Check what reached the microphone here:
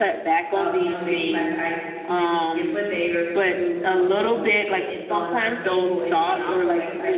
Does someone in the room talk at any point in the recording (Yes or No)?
Yes